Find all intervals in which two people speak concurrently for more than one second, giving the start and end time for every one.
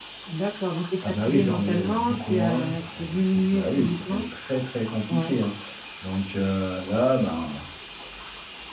1.0-4.2

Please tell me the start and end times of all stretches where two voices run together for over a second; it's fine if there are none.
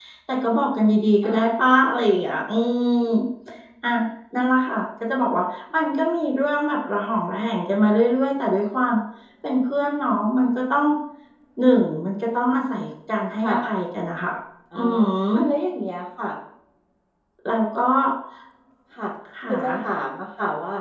none

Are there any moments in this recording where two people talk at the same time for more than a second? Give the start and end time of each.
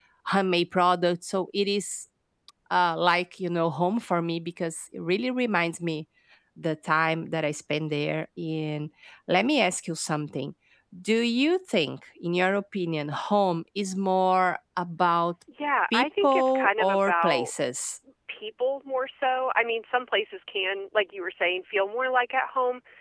15.9-17.5

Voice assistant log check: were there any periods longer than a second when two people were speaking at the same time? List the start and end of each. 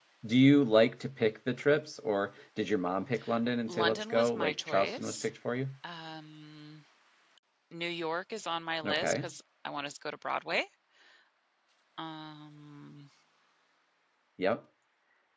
3.7-5.3

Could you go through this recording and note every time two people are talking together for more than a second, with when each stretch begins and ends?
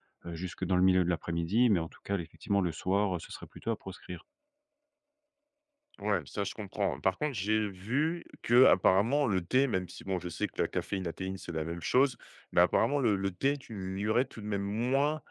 none

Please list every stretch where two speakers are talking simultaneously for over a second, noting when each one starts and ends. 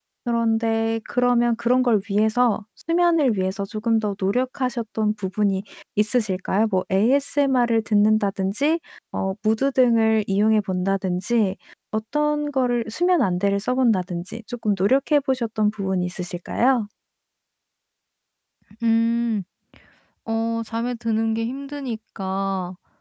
none

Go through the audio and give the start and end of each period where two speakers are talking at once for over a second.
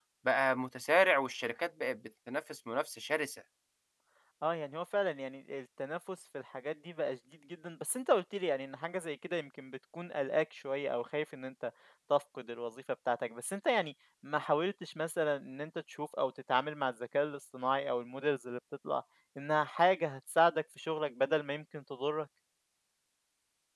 none

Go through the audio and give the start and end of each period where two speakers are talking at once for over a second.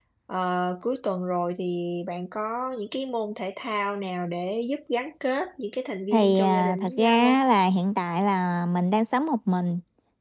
6.1-7.4

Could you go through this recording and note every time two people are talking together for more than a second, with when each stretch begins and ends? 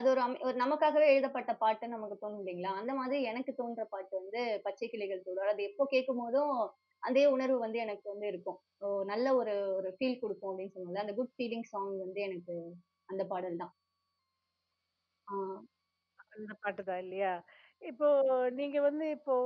none

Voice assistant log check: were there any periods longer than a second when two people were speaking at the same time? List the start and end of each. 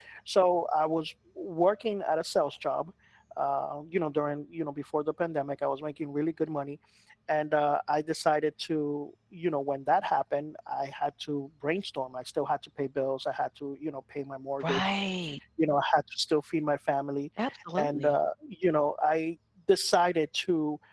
none

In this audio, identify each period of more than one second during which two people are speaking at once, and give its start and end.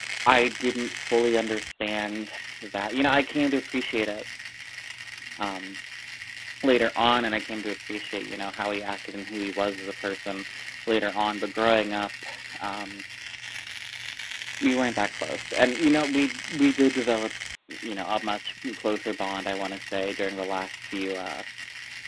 none

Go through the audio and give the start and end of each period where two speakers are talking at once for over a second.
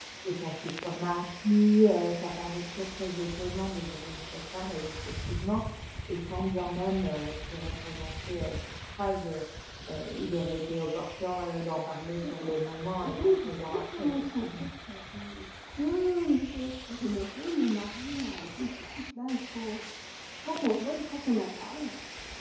13.0-14.7

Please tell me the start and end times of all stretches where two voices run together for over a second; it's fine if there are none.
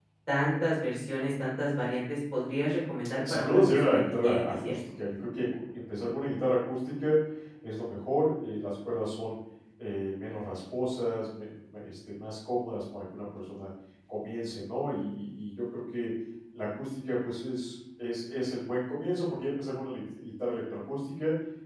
3.3-4.8

